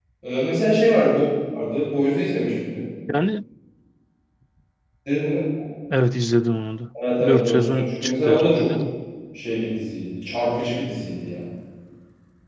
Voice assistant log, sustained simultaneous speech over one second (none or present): present